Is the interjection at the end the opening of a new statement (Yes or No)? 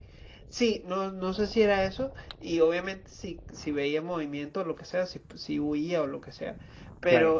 No